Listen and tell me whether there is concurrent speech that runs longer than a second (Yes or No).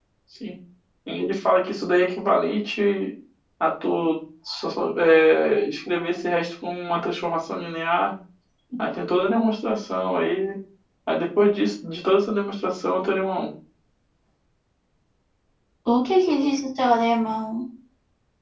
No